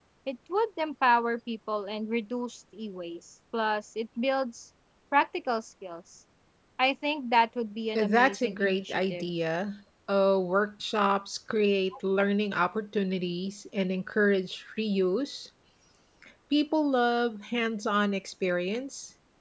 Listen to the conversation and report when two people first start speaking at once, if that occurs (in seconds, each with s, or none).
8.0 s